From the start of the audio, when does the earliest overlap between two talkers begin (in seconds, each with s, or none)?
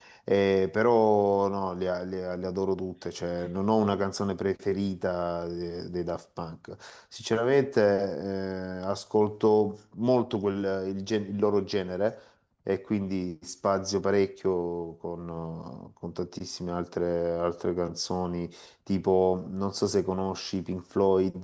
none